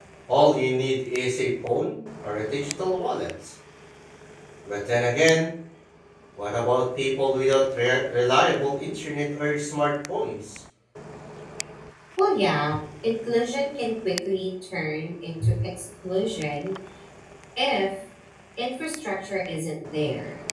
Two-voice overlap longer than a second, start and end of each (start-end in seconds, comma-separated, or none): none